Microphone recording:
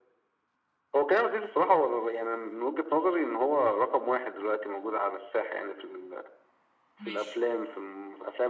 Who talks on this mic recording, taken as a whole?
both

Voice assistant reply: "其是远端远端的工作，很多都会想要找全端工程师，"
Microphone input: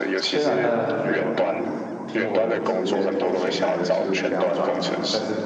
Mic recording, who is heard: both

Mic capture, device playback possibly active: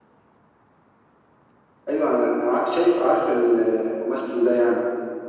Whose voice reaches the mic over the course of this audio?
echo only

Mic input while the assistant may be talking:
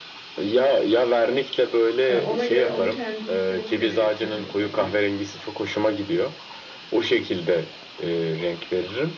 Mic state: both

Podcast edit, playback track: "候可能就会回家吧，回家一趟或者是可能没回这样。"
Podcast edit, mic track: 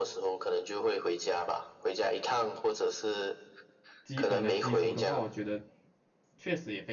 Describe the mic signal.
both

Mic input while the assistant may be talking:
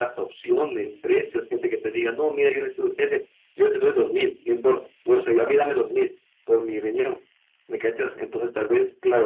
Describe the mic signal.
echo only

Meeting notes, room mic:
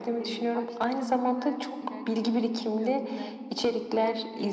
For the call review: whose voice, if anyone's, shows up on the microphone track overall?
both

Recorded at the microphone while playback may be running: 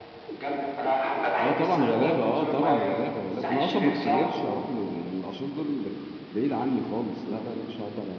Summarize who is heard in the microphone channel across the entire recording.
both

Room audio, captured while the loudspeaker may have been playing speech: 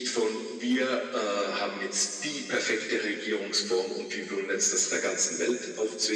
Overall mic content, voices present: echo only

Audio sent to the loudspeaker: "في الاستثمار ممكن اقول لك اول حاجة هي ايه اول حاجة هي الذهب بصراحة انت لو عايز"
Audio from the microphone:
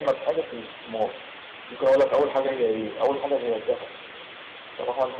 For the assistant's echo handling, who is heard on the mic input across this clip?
echo only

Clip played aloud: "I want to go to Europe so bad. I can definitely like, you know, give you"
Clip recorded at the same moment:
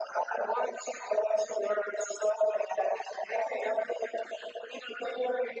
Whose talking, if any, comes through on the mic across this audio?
echo only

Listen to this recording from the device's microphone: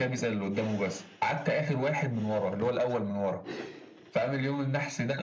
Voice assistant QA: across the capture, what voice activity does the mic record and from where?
echo only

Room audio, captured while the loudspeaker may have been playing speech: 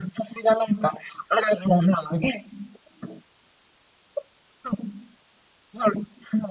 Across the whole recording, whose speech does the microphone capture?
echo only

